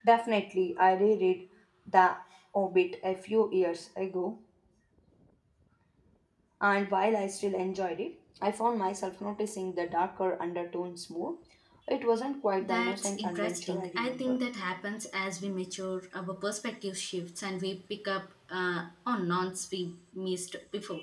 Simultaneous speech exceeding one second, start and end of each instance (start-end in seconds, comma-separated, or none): 12.6-14.4